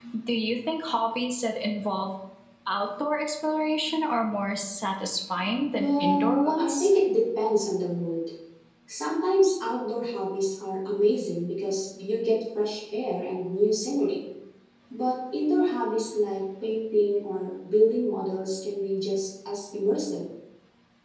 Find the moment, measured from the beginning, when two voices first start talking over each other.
6 s

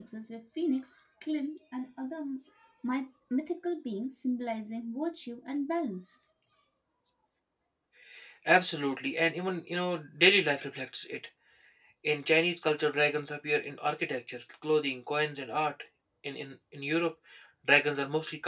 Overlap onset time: none

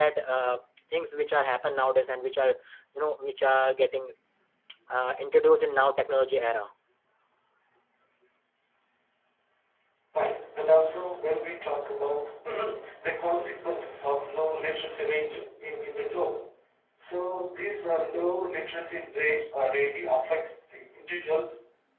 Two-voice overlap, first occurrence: none

